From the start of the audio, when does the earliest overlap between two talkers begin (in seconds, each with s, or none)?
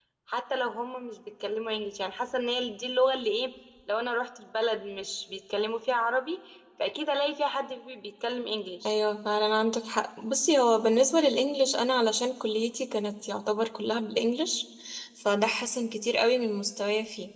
none